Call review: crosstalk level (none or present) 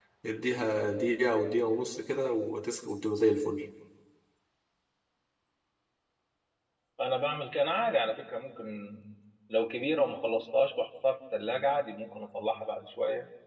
none